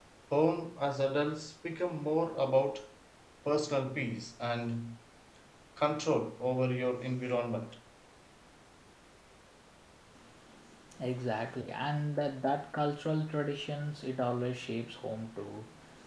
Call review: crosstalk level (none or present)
none